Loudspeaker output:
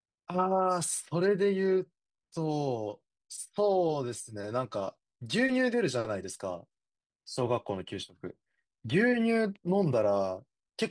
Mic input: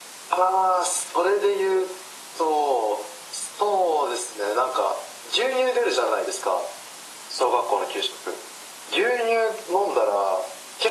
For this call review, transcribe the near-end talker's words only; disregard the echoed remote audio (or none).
none